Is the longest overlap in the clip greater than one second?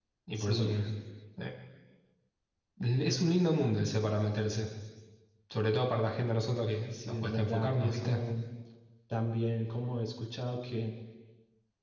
Yes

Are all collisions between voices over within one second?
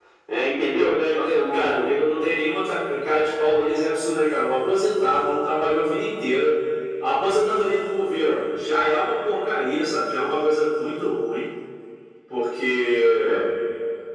No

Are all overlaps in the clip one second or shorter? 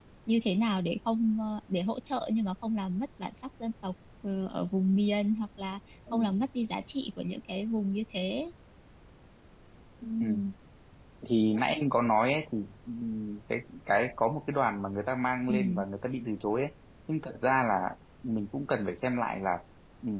Yes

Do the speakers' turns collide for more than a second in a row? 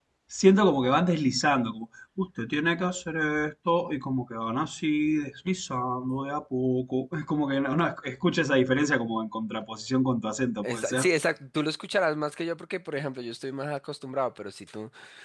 No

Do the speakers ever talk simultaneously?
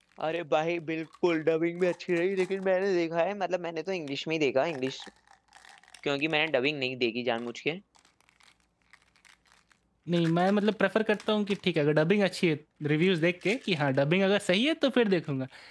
No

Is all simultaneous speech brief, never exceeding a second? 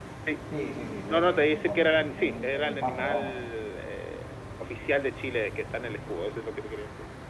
No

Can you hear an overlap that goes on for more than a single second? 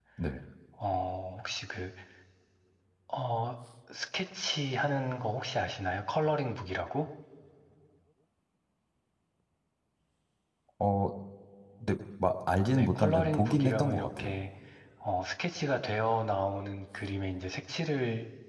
Yes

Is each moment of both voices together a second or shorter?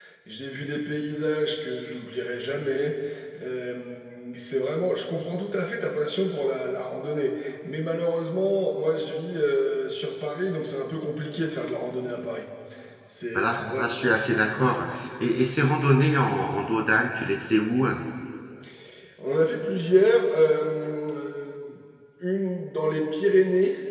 Yes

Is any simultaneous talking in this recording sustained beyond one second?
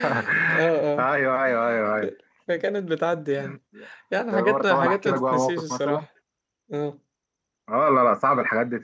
Yes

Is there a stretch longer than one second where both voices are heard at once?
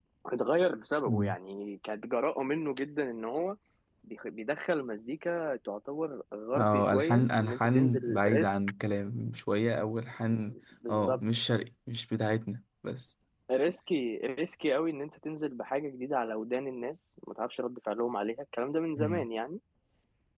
Yes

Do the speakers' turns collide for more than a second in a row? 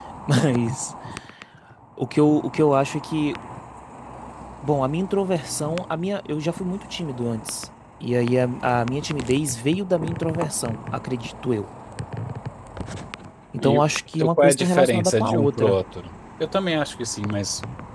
Yes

